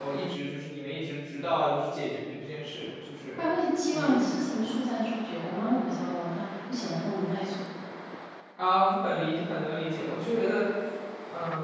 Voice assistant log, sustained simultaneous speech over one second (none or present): none